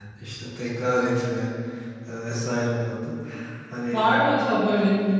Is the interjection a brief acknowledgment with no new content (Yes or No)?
No